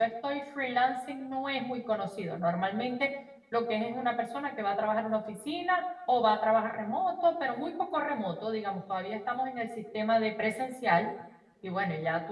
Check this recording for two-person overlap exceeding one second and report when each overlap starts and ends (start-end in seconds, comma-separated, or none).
none